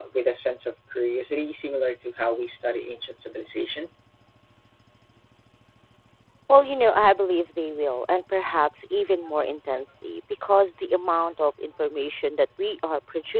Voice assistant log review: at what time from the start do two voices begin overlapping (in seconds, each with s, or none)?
none